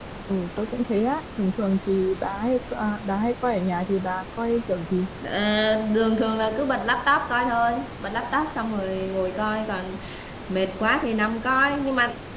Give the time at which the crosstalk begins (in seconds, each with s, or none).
none